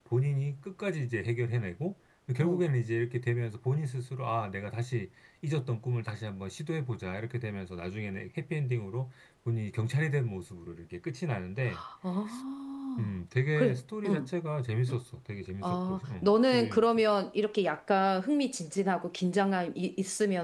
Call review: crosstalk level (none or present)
present